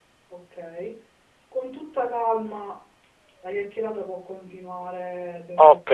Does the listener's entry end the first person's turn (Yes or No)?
Yes